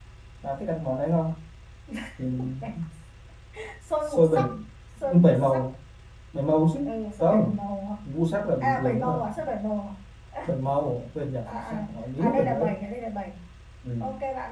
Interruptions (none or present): present